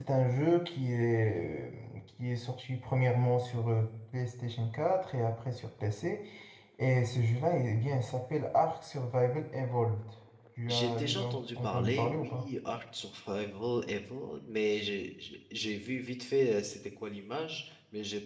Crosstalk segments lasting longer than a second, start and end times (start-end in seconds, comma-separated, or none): 10.7-12.5